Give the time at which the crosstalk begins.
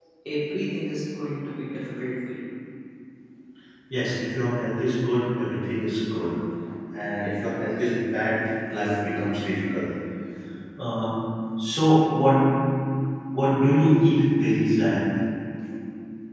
none

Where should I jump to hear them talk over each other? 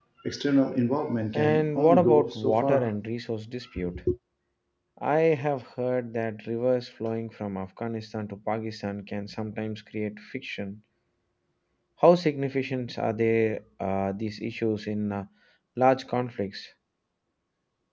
1.3 s

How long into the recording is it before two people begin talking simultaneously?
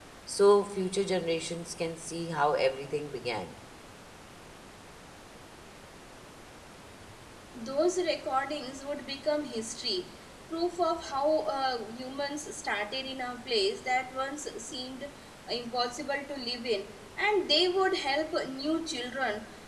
none

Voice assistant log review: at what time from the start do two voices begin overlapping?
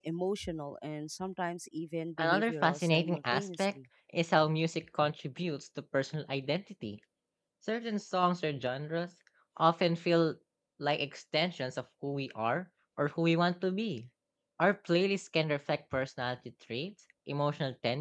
2.2 s

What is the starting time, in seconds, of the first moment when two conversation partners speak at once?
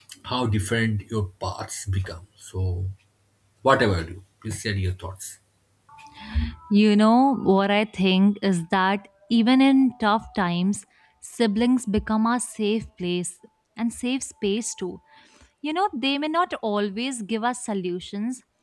none

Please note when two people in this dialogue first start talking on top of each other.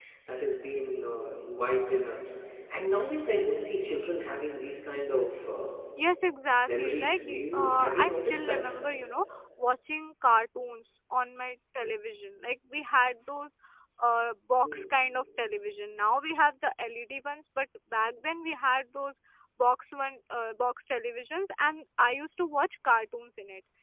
6.7 s

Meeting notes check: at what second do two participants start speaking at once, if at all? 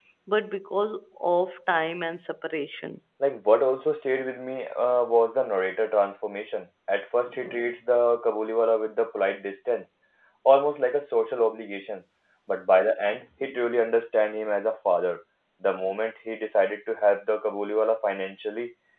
none

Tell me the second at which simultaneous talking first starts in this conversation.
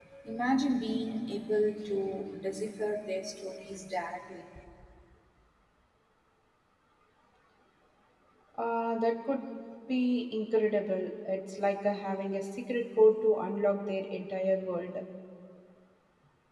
none

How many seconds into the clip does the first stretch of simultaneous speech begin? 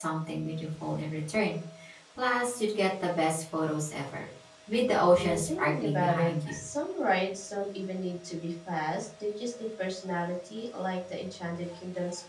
5.1 s

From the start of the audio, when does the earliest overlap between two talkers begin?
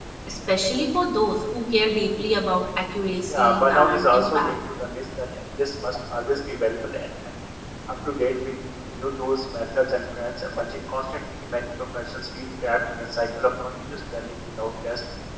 3.3 s

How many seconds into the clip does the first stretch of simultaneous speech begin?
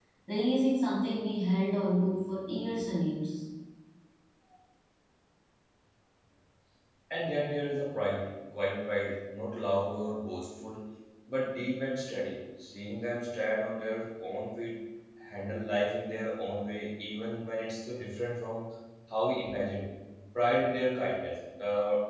none

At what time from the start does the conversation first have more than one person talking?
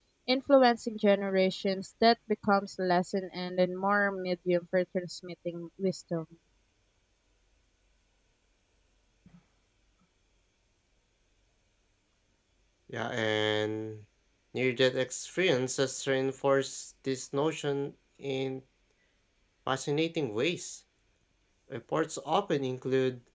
none

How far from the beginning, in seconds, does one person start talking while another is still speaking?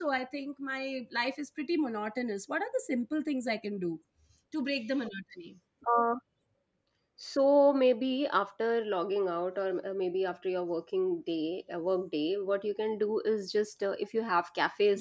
none

